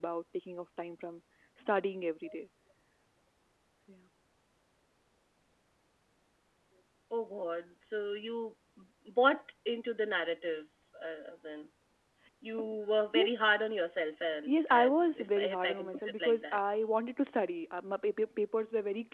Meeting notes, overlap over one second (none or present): present